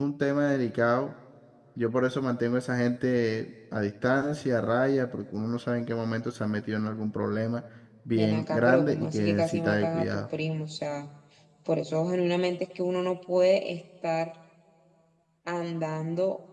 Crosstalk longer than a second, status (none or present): present